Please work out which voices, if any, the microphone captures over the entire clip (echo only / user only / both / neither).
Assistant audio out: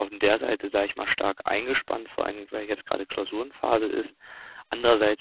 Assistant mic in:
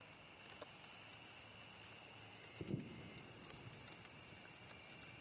neither